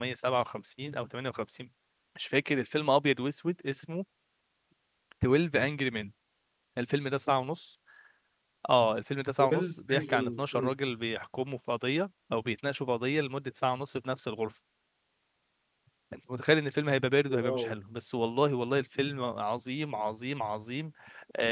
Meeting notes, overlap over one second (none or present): present